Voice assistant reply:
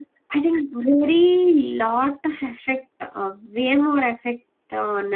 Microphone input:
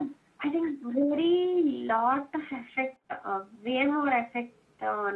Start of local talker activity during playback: none

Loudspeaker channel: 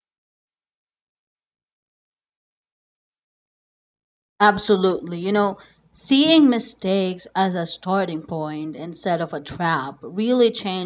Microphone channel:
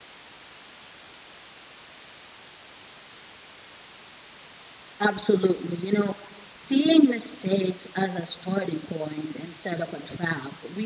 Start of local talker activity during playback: none

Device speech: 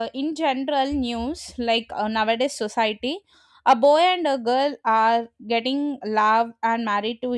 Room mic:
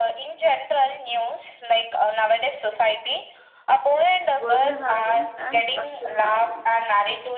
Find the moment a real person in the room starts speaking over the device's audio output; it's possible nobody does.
4.4 s

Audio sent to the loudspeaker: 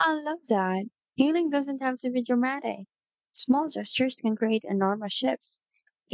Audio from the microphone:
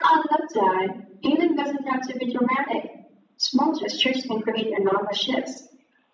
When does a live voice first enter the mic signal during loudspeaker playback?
none

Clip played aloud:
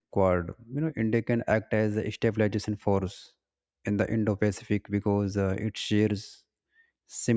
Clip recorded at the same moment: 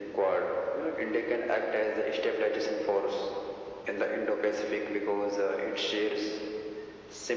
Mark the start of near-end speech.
none

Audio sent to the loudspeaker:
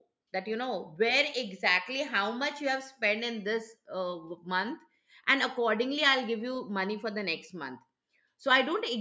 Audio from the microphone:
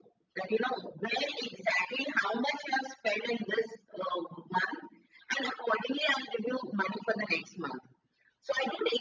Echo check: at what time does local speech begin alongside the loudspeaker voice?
none

